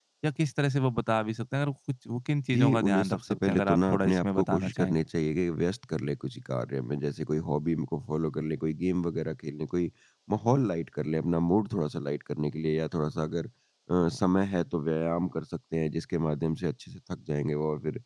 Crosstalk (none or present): present